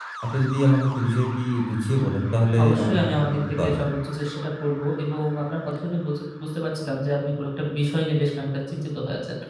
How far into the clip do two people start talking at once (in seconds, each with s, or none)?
2.6 s